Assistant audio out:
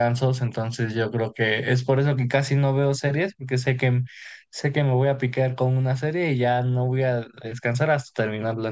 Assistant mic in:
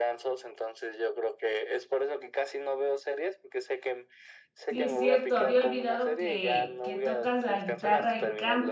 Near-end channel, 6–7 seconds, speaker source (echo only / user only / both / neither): both